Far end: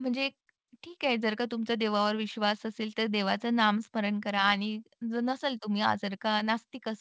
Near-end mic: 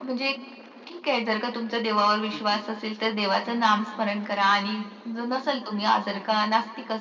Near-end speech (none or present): present